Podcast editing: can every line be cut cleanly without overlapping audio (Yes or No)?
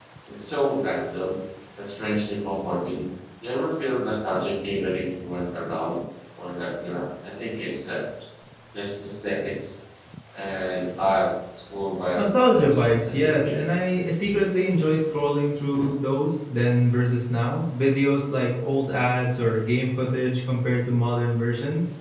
No